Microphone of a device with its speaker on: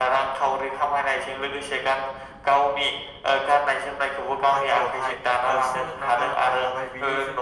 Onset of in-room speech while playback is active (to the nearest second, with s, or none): 5 s